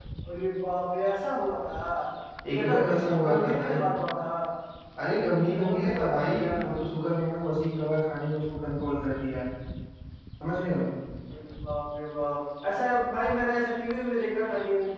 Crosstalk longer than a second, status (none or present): present